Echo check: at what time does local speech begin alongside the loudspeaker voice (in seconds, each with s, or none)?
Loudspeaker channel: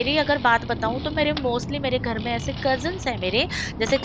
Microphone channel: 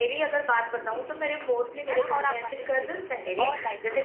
1.9 s